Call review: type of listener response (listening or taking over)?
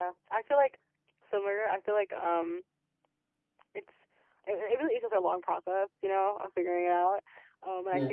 listening